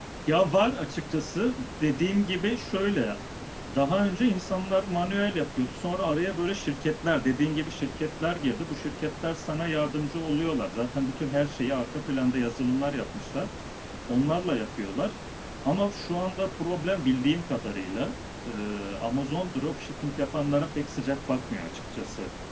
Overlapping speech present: No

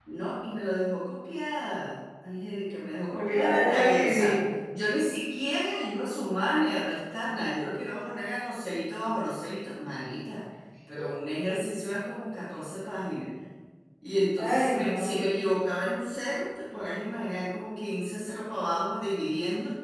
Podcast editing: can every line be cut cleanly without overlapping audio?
No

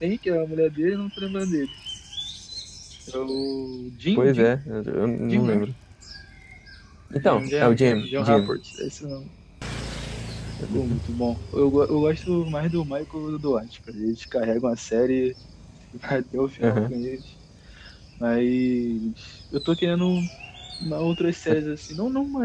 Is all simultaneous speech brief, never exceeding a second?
No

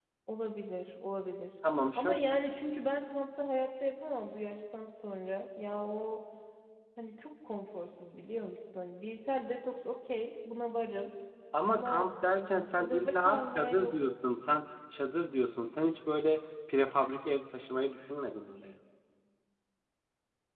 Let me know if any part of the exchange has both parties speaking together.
Yes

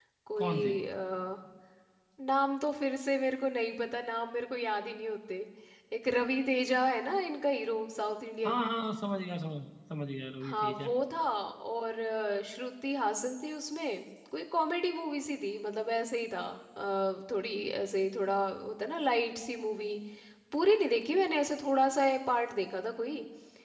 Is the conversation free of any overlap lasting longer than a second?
Yes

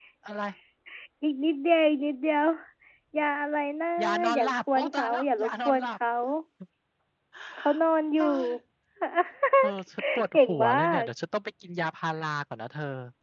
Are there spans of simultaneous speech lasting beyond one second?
Yes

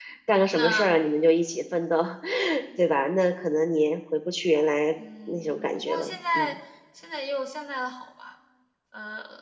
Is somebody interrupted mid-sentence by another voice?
Yes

